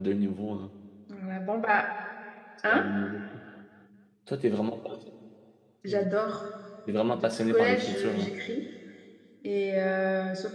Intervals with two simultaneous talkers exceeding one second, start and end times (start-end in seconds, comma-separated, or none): 7.1-8.3